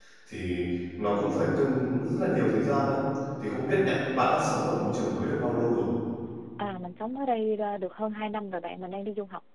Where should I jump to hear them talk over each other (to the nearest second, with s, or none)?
none